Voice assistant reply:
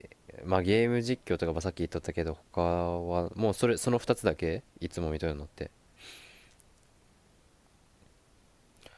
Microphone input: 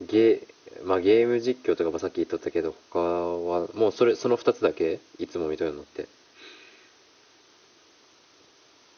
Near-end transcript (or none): none